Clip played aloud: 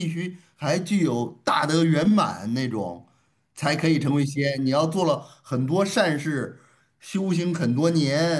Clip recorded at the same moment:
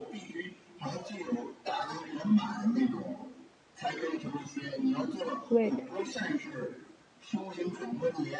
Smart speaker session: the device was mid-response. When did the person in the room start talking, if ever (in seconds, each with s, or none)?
5.5 s